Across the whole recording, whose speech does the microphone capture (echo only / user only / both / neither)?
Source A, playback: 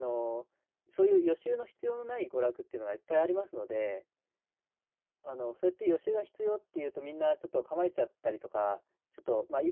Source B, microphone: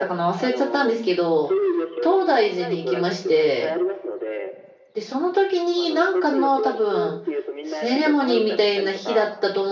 both